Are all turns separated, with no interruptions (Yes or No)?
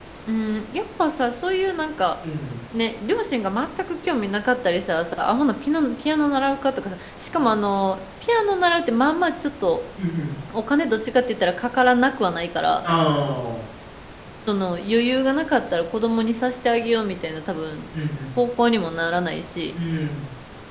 Yes